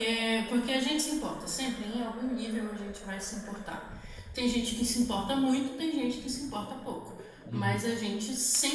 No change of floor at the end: Yes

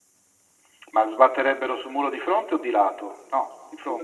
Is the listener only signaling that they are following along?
No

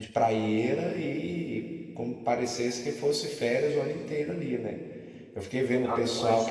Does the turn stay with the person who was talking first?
Yes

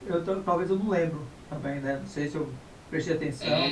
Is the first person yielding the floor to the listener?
Yes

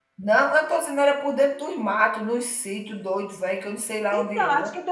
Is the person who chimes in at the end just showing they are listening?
No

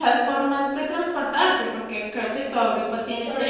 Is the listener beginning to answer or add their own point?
Yes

